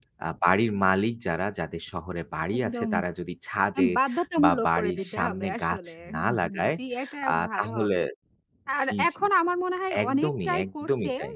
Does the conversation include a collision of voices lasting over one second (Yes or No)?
Yes